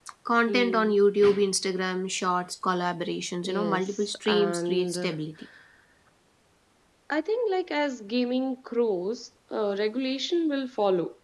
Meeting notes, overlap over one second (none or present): present